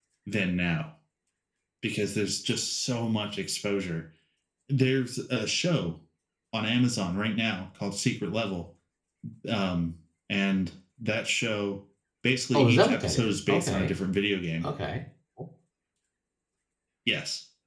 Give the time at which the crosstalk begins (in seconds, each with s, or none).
12.5 s